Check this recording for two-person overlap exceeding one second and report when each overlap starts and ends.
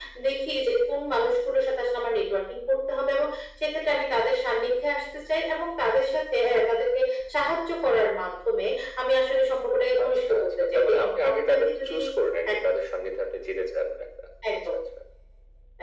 10.0-11.9

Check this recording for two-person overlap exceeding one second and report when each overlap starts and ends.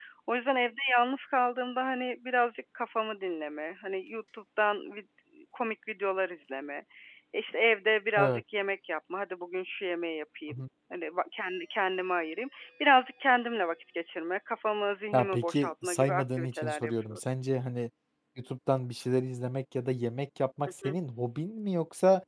15.1-17.2

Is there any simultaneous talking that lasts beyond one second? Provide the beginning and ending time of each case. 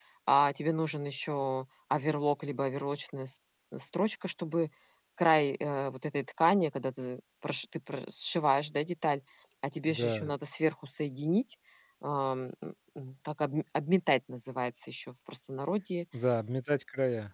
none

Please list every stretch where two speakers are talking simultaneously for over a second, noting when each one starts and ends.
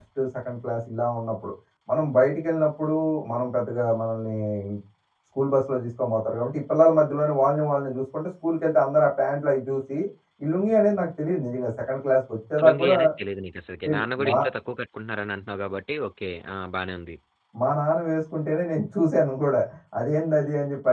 none

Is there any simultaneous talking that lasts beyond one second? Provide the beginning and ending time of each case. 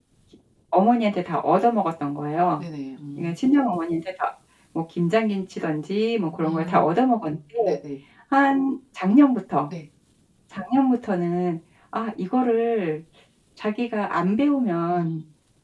none

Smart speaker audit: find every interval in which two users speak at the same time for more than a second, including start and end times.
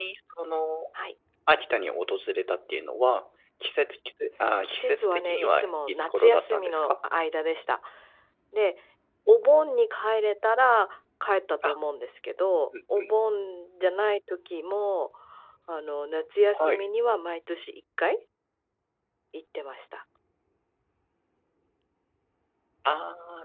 4.6-6.9

